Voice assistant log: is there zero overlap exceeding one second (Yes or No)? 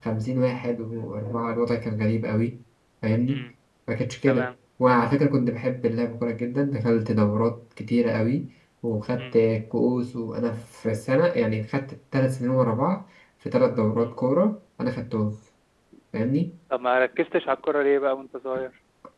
Yes